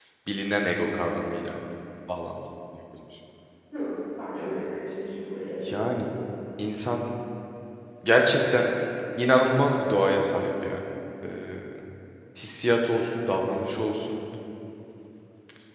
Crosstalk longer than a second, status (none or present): none